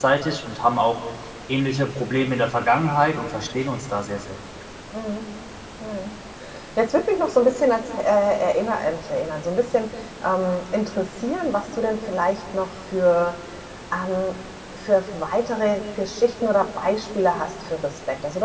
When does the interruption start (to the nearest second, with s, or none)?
none